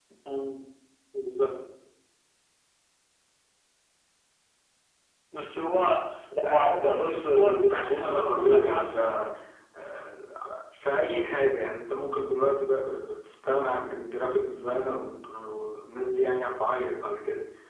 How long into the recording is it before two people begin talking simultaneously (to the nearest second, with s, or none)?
6 s